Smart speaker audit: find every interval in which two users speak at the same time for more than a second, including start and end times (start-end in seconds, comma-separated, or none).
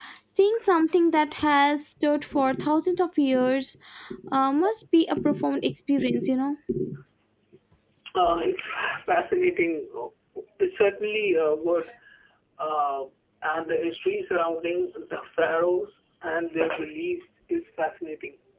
none